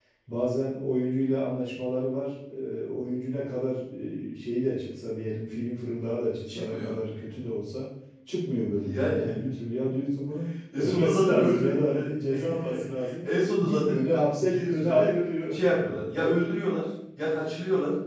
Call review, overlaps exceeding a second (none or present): present